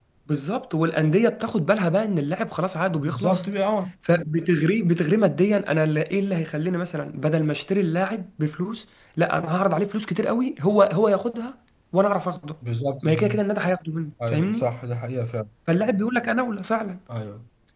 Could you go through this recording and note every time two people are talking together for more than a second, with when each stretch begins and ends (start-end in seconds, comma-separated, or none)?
none